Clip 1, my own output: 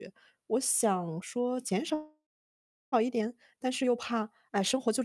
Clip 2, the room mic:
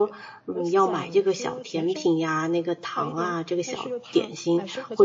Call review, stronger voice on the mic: user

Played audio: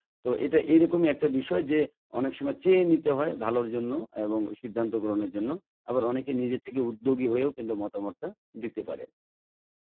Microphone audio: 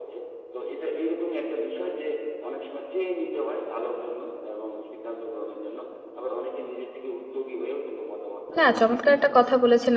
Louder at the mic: user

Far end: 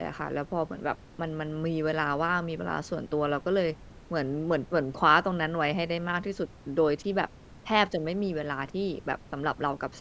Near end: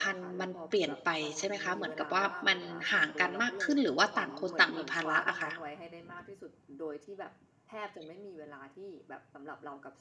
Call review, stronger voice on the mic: user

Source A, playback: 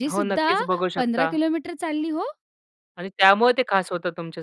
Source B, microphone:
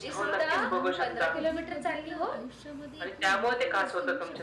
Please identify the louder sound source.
echo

